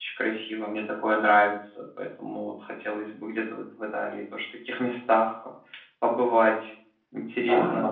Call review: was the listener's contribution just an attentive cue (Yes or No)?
No